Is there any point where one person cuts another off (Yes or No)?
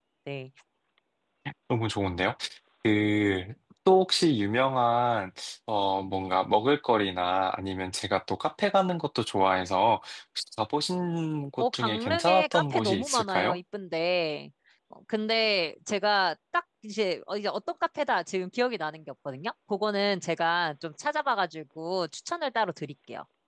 Yes